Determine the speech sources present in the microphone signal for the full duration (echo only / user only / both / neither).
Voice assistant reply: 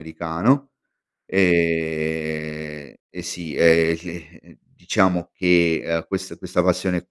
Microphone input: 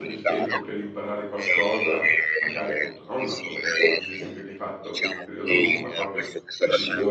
both